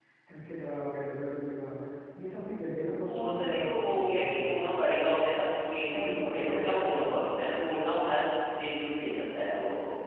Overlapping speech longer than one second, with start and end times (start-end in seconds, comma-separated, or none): 3.2-4.8, 5.9-7.3